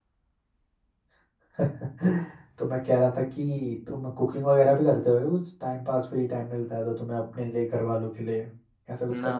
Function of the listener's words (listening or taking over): taking over